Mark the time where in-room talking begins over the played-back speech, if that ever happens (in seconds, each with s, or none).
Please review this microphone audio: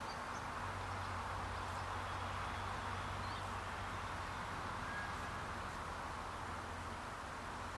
none